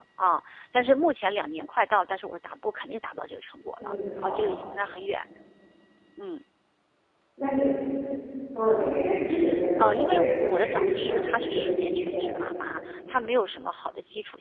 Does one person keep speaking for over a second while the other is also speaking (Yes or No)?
Yes